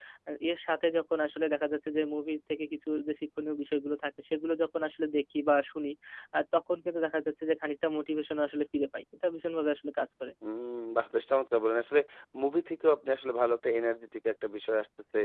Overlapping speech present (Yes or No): No